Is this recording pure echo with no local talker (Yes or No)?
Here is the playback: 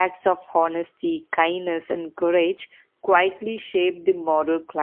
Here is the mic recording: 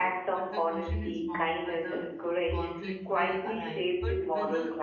No